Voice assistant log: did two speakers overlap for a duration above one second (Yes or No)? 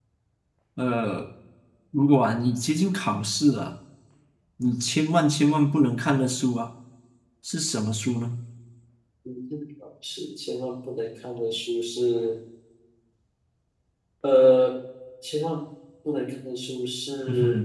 No